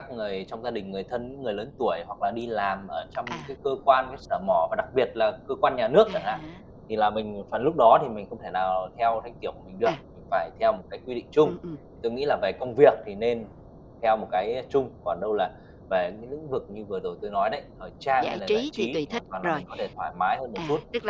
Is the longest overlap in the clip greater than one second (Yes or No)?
Yes